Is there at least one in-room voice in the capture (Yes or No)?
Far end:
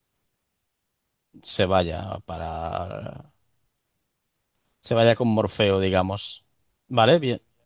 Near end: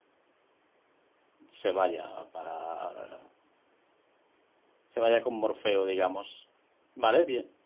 No